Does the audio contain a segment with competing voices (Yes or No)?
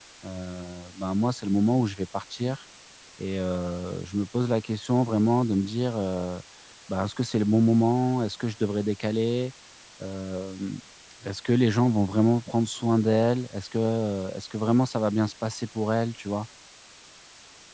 No